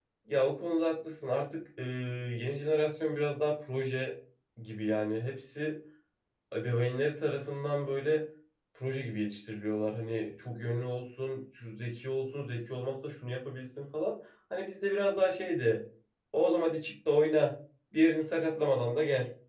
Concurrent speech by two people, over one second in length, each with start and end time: none

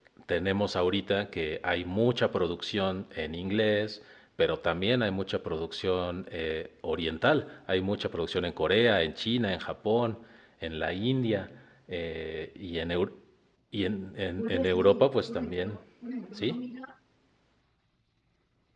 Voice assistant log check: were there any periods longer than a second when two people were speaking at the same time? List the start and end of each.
14.4-15.8

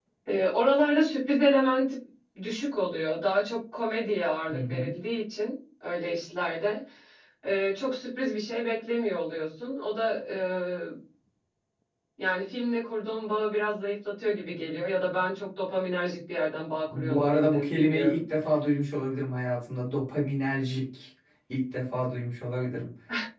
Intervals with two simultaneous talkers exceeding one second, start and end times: 16.9-18.2

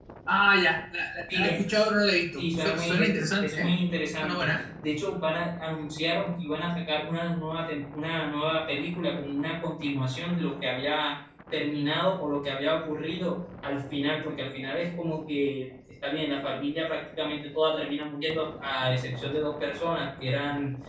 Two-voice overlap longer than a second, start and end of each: 2.4-3.7

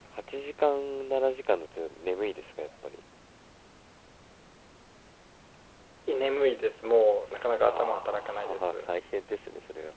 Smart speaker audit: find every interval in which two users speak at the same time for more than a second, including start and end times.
7.6-8.9

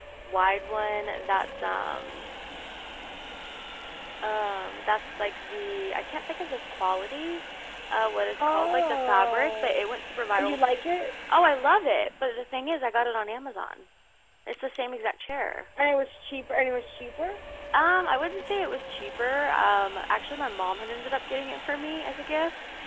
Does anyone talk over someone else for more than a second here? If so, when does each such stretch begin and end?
8.4-9.8

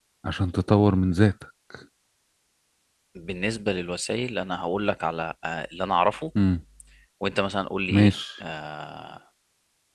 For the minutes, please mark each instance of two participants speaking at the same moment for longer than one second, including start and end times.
none

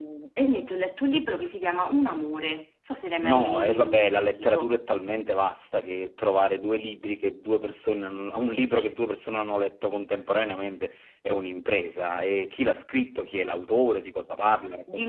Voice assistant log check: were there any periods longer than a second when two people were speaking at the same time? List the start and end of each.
3.2-4.7

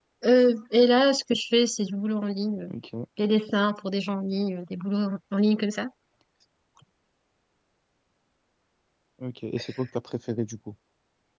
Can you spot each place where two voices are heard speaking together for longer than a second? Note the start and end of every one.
none

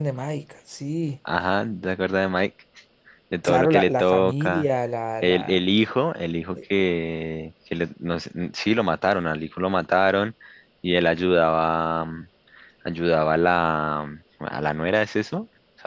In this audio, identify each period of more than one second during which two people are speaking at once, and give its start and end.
3.4-4.7

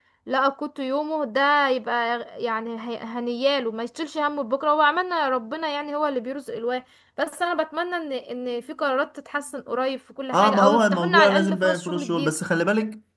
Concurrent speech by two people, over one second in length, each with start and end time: 10.3-12.4

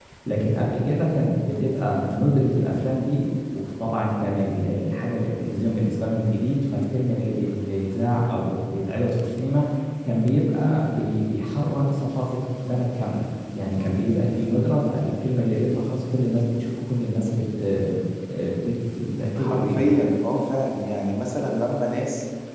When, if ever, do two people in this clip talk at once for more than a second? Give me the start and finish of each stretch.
none

